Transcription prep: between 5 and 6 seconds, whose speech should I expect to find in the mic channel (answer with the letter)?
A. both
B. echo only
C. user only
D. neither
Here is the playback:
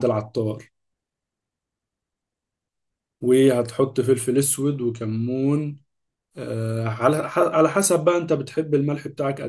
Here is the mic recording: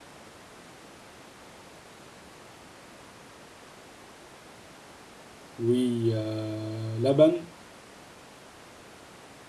C